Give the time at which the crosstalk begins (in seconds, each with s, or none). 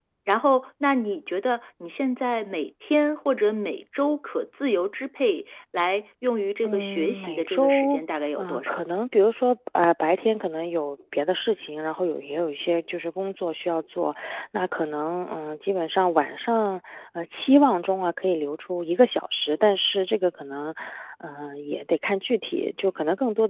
6.6 s